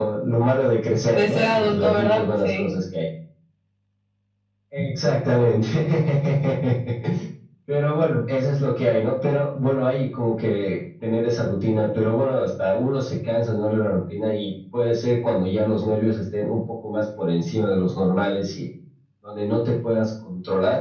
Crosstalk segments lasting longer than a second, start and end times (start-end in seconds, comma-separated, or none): 1.1-2.7